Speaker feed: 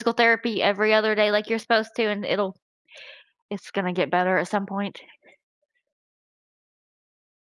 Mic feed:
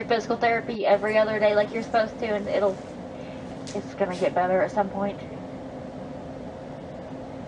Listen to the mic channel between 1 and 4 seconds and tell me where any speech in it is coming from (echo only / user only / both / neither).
echo only